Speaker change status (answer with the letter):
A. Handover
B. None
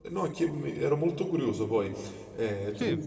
B